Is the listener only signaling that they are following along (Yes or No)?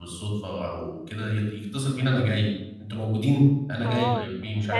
No